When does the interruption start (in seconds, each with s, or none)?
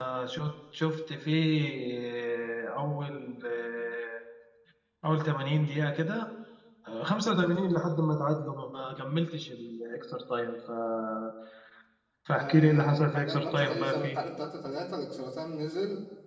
12.4 s